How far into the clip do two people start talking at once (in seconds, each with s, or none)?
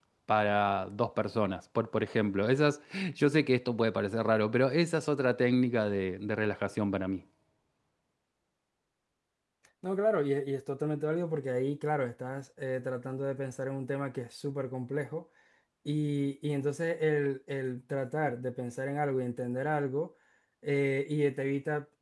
none